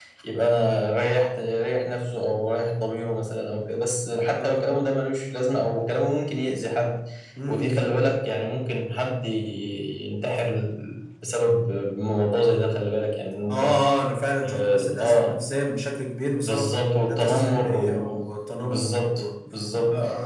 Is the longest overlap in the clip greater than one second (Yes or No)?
Yes